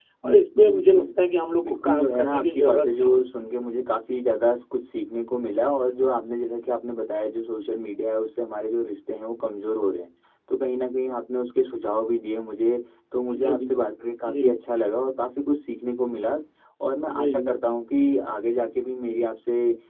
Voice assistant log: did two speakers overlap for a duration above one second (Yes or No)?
Yes